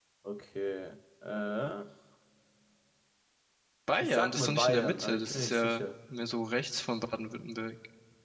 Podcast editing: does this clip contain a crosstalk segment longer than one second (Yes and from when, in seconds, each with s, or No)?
Yes, from 4.0 s